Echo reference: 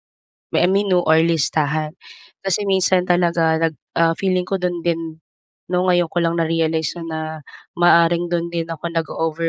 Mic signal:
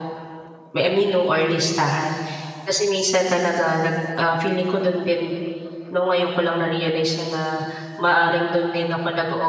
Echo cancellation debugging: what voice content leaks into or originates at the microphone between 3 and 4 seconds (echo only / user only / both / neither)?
echo only